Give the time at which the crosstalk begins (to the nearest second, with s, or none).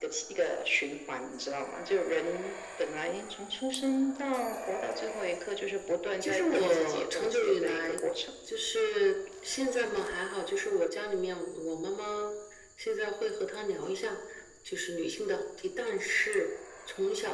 6 s